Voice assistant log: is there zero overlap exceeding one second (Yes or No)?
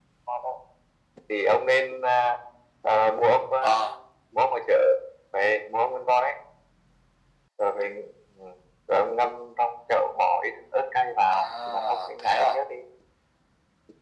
No